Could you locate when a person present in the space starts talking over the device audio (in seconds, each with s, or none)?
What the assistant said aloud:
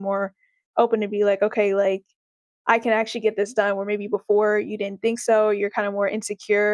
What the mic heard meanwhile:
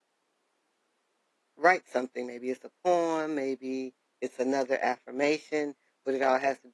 1.6 s